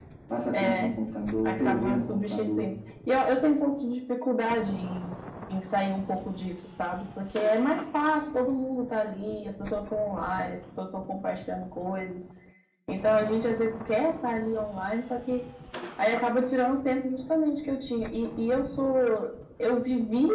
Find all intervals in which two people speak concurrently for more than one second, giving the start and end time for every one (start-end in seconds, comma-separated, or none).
1.4-2.7